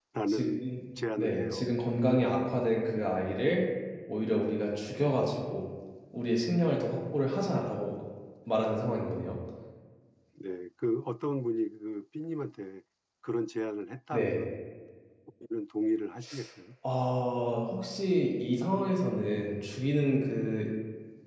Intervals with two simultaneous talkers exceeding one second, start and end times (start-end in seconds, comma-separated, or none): none